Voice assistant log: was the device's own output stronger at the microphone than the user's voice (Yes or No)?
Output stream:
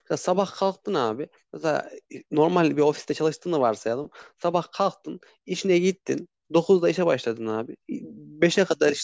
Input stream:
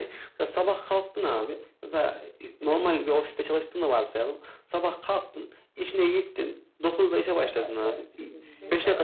Yes